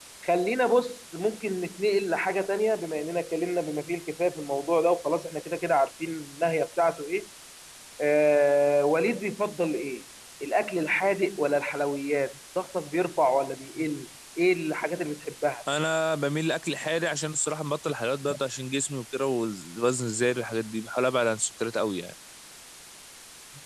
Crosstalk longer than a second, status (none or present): none